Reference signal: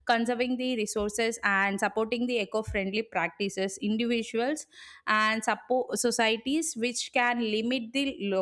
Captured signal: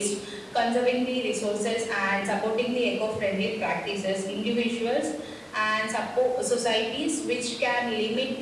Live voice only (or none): none